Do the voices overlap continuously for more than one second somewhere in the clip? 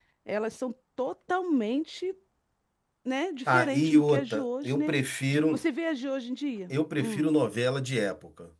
Yes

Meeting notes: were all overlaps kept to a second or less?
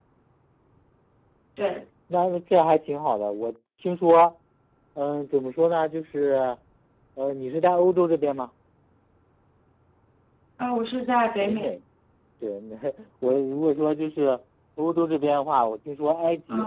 Yes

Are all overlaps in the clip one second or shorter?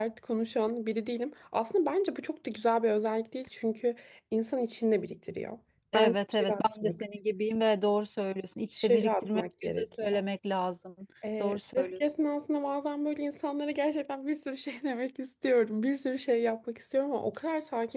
No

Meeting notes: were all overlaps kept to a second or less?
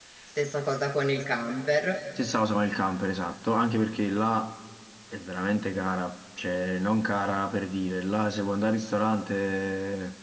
Yes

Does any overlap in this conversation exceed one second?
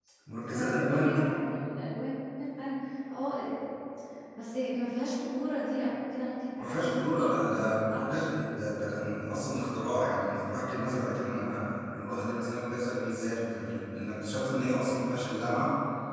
Yes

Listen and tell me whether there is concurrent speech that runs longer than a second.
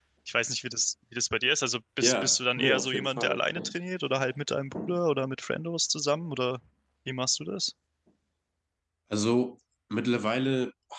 Yes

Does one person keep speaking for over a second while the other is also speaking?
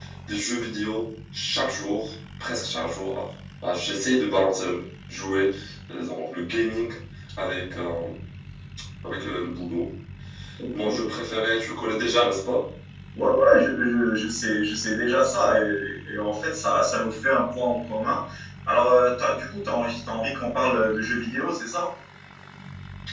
No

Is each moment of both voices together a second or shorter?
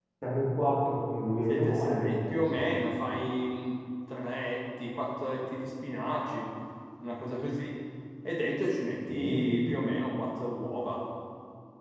No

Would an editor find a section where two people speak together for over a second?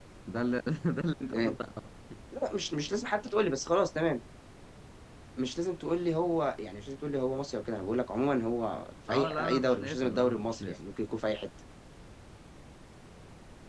Yes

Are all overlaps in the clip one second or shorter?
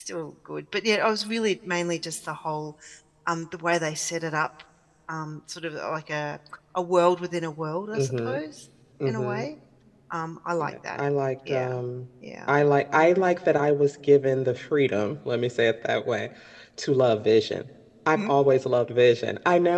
Yes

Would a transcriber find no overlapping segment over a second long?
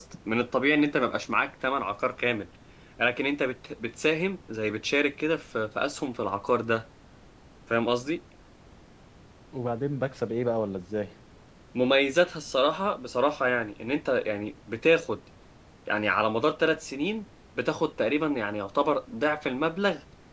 Yes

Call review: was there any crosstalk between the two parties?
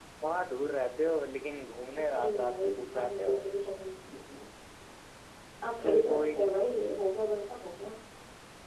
Yes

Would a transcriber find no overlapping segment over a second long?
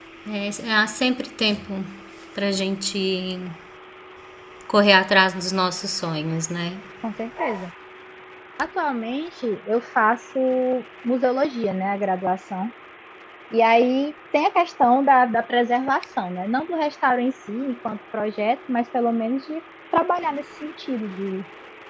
Yes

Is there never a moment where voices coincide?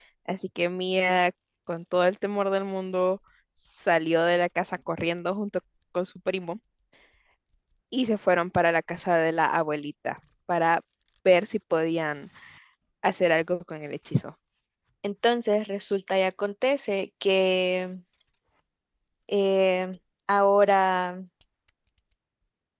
Yes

